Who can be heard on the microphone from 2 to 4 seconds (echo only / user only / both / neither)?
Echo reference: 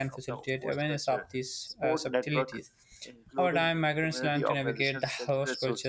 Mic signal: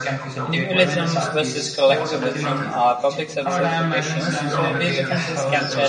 both